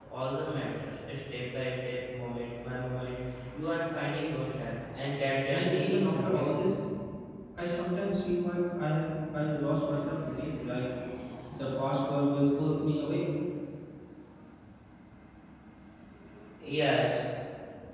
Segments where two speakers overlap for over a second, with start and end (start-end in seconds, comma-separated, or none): 5.5-6.7